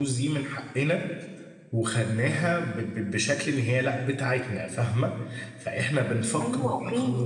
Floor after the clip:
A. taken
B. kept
A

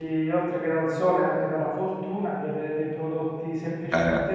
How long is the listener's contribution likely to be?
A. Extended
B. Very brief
B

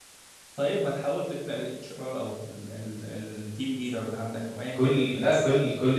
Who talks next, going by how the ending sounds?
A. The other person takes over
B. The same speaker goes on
A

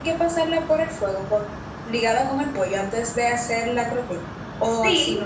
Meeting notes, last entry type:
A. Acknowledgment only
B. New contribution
B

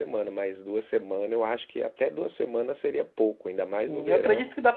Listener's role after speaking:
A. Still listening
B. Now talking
B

